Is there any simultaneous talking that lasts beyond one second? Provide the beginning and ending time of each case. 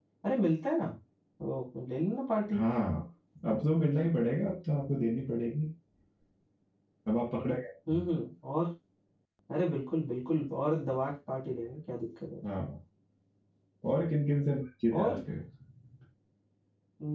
none

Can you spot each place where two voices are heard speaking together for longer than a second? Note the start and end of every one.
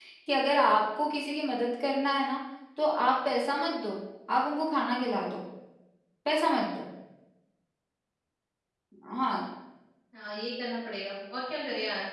none

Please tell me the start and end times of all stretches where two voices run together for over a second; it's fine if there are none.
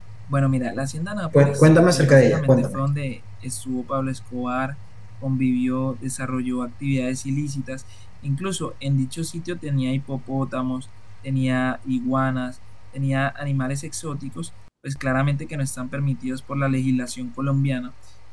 1.3-2.8

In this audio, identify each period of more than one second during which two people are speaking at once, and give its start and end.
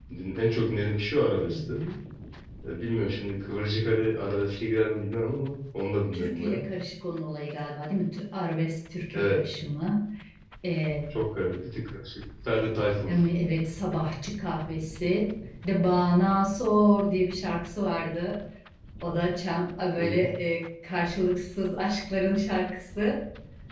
none

